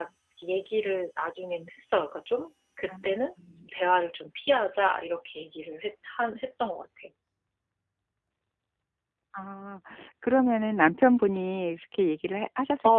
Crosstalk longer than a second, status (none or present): none